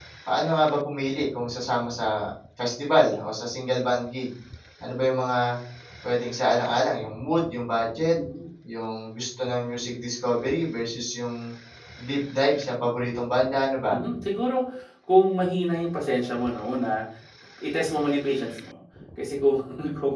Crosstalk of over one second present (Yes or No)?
No